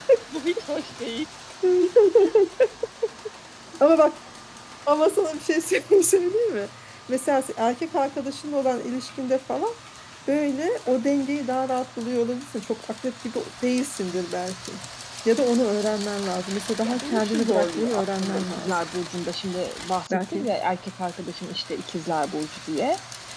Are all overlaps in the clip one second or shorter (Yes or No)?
No